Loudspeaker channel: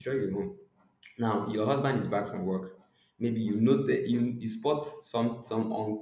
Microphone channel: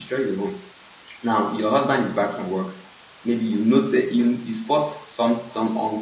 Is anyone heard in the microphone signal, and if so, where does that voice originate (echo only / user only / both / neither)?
echo only